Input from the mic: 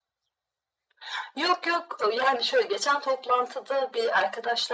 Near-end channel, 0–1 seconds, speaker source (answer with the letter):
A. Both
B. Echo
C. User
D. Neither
D